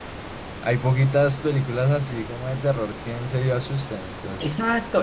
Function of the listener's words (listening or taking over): taking over